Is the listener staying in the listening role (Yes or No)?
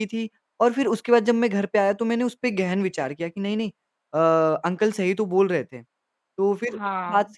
Yes